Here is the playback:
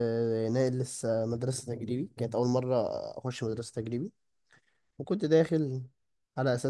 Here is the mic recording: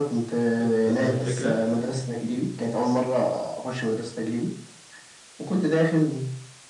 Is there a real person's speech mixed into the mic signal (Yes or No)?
Yes